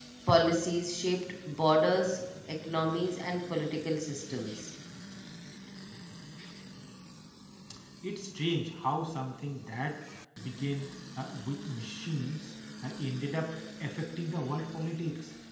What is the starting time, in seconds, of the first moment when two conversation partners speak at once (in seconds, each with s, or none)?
none